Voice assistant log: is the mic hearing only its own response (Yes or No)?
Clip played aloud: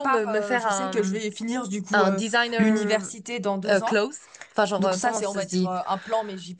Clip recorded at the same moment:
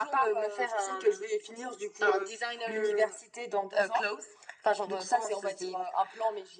Yes